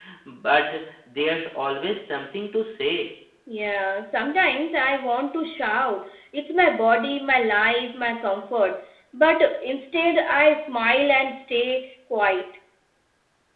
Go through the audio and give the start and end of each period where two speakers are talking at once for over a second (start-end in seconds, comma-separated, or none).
none